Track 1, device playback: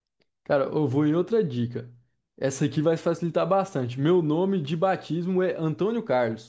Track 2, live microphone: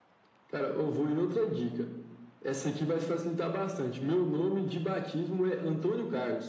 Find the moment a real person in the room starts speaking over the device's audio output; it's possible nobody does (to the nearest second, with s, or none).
none